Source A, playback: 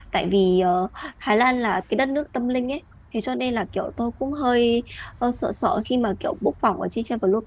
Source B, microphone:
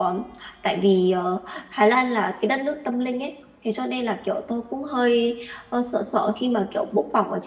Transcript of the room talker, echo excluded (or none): none